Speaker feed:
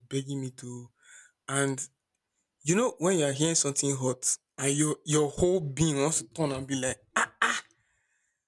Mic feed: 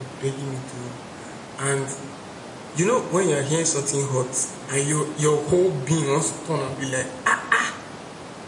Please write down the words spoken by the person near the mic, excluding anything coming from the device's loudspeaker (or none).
none